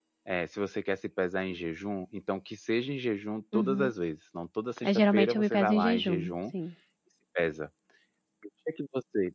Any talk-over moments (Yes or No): Yes